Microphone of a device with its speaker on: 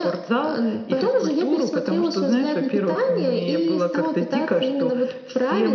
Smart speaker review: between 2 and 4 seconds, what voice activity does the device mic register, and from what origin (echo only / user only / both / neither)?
echo only